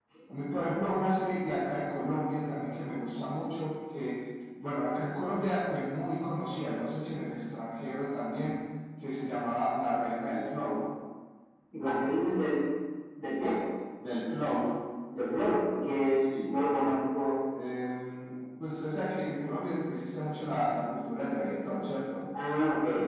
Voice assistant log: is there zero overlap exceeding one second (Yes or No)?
Yes